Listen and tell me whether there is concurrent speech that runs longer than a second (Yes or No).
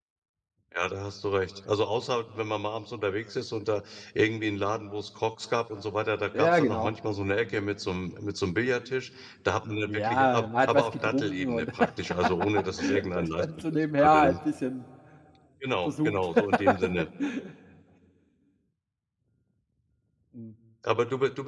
Yes